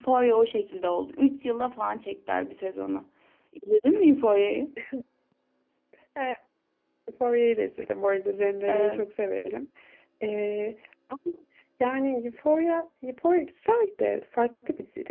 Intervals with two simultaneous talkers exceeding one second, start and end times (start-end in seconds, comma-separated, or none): none